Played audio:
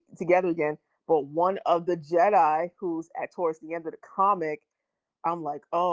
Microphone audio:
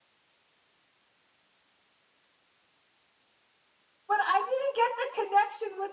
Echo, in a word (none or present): none